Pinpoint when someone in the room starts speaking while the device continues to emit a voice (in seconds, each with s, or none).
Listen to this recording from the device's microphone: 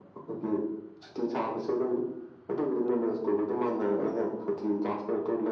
none